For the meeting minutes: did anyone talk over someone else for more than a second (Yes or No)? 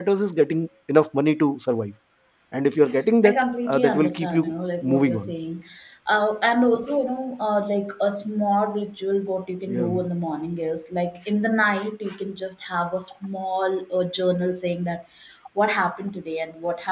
Yes